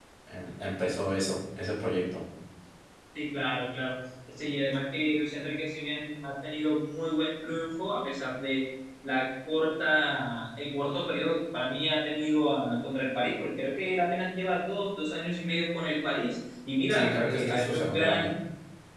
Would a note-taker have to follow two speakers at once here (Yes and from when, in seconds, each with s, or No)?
Yes, from 16.9 s